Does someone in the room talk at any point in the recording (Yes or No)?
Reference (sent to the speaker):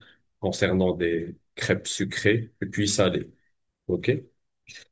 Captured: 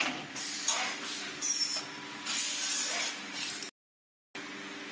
No